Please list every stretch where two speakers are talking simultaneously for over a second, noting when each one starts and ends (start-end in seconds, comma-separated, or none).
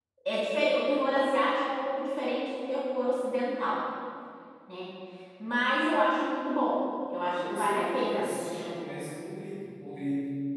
7.4-8.8